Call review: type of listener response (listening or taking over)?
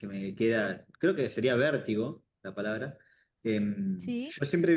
listening